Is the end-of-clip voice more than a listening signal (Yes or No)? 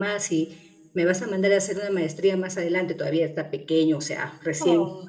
No